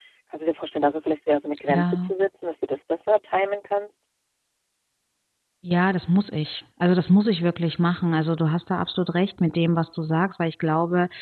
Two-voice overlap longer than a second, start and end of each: none

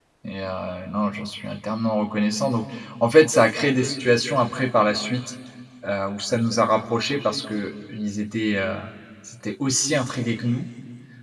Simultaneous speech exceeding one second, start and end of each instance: none

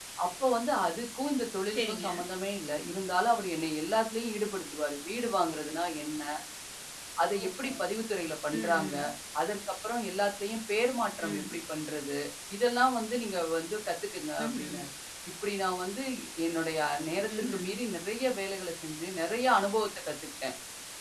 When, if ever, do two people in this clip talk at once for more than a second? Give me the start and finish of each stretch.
none

